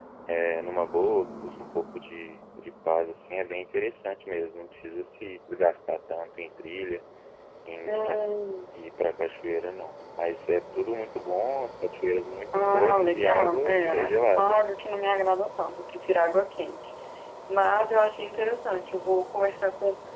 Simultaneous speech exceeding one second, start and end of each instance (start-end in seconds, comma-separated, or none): 12.5-14.6